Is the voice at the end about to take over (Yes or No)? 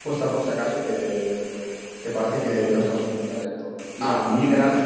No